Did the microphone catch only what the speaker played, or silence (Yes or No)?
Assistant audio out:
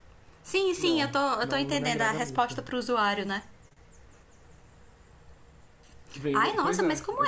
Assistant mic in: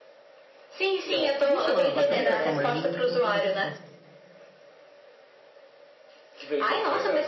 No